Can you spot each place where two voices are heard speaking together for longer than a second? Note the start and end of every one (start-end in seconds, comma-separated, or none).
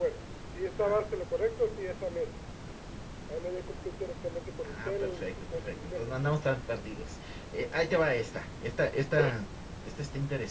4.6-6.6